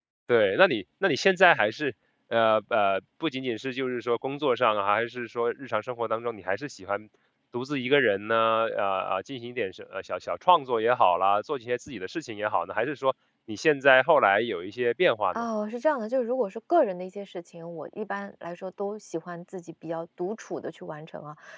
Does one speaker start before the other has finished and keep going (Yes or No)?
No